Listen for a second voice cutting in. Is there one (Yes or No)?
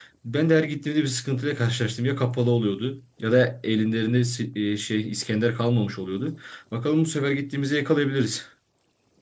No